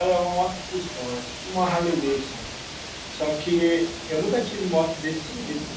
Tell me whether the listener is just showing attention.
Yes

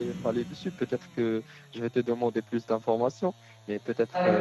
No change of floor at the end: Yes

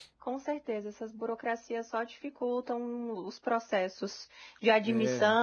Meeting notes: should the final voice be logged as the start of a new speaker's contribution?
No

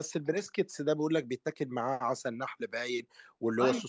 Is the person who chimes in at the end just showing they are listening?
Yes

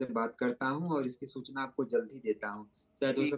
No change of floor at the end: Yes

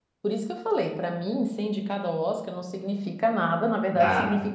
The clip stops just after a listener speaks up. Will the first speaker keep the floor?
Yes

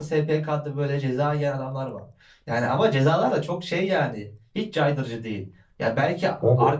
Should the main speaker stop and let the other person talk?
No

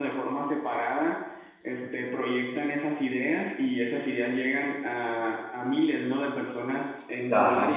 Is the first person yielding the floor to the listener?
No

